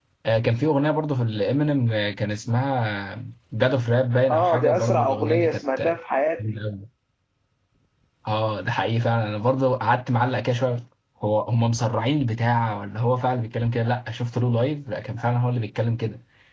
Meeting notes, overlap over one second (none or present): present